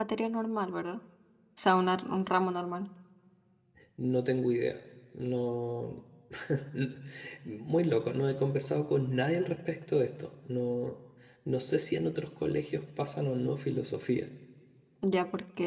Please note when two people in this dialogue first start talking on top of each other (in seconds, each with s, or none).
none